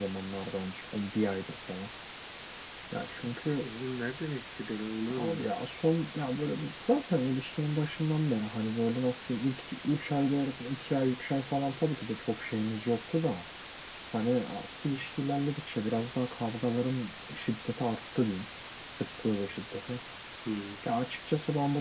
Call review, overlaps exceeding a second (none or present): none